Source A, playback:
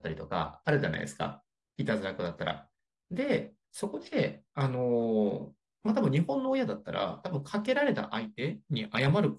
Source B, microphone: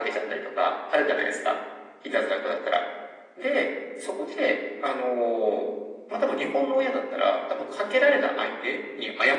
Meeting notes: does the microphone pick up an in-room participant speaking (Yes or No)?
No